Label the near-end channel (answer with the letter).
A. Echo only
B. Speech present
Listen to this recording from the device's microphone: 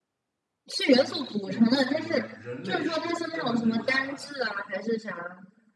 B